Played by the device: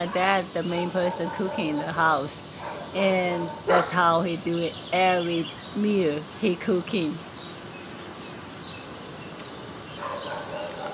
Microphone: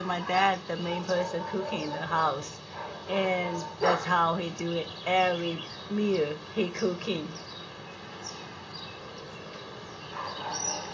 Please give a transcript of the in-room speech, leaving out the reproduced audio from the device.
none

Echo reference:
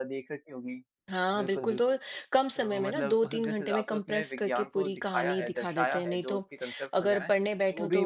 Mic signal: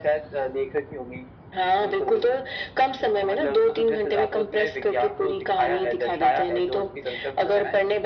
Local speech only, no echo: none

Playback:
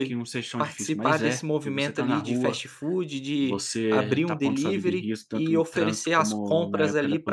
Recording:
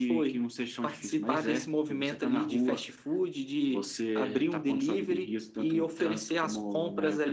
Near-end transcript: none

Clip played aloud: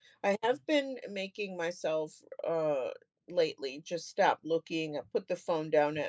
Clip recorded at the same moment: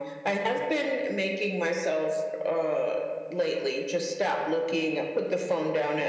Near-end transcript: none

